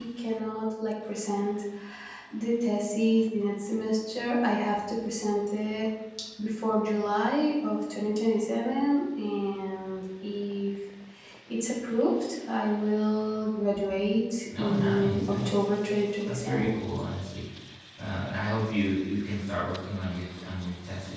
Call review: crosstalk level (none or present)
present